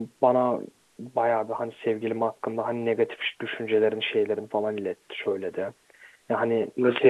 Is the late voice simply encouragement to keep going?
No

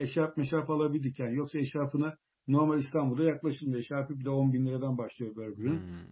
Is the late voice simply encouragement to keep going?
Yes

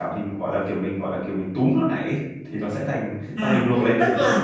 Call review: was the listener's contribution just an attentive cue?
No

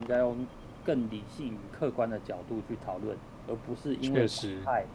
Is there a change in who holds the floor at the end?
No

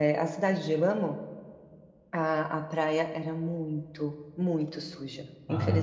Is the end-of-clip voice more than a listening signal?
Yes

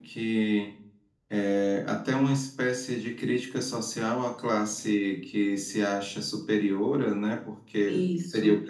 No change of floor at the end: Yes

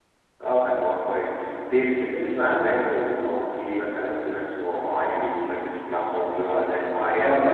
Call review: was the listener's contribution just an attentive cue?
No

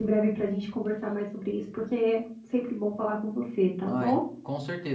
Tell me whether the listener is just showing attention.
No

